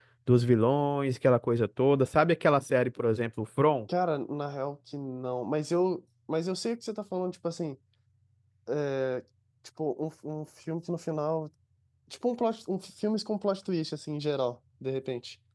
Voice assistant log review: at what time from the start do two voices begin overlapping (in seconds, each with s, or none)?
none